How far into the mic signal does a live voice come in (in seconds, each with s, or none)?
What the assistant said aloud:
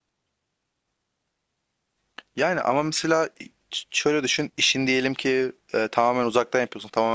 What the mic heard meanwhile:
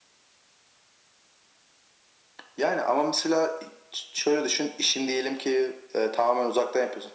none